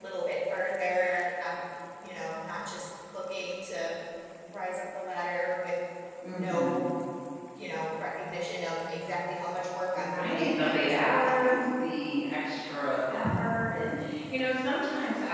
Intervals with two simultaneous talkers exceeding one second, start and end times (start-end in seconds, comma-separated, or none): 9.9-11.6